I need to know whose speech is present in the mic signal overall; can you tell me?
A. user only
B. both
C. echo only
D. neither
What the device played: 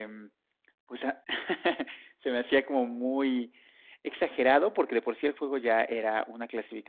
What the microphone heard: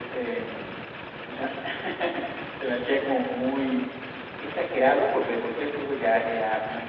C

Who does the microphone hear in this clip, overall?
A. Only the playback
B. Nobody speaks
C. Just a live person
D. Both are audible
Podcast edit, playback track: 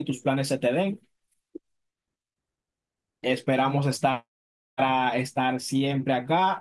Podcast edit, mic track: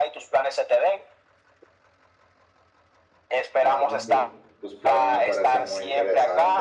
D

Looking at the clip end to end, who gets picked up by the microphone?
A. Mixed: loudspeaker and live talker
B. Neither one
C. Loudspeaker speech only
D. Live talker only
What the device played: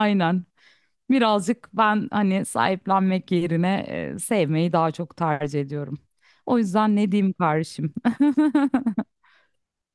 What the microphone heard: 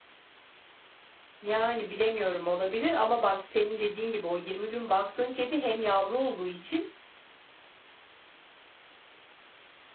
D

